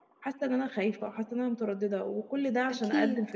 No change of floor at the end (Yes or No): Yes